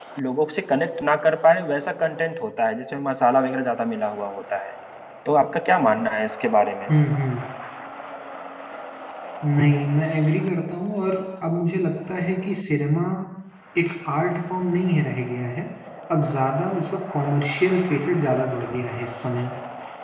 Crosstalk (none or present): none